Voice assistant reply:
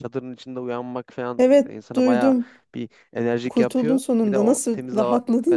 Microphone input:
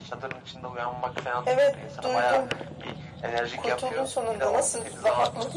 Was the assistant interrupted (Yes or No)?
No